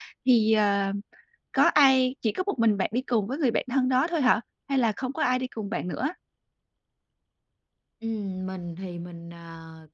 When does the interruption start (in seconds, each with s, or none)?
none